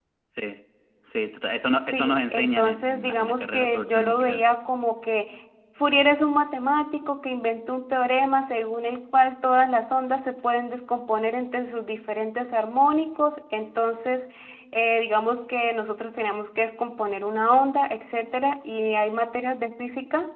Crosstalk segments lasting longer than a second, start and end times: 1.9-4.4

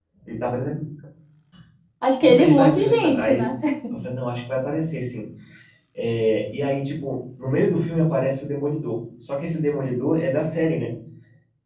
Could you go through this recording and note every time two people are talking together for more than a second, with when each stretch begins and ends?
2.2-3.5

